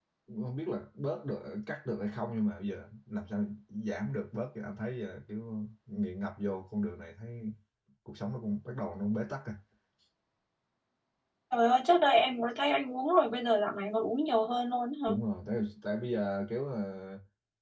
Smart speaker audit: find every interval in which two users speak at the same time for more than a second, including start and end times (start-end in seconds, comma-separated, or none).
none